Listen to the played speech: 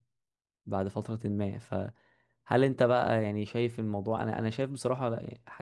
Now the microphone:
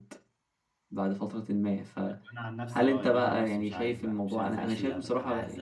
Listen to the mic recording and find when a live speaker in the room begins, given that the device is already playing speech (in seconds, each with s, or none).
2.0 s